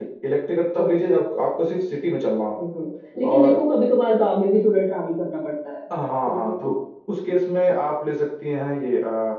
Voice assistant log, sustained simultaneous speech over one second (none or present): none